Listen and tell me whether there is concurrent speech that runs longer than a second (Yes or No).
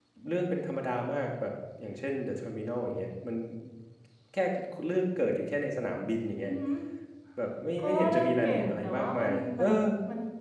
Yes